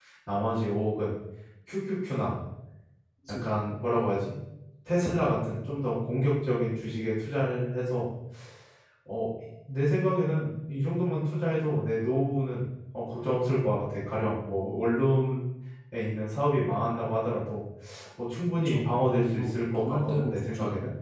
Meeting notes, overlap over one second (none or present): present